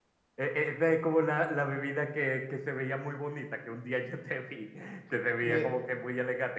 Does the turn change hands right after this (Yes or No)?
No